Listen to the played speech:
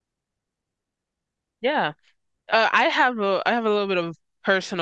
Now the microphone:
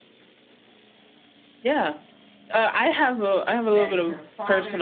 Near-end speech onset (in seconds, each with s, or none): 3.7 s